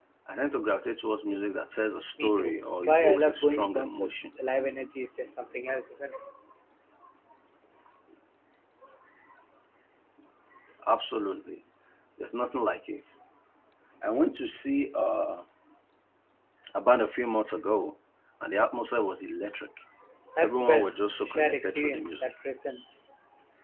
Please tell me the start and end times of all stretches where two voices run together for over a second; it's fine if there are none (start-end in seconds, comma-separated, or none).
2.2-4.2, 20.4-22.3